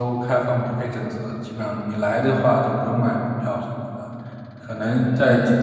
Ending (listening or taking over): listening